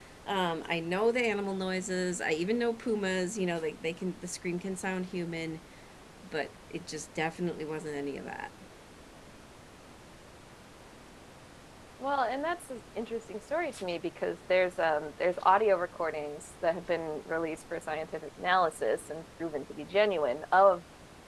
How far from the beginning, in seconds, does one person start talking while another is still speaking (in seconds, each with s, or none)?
none